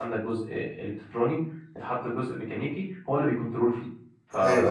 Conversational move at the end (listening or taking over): taking over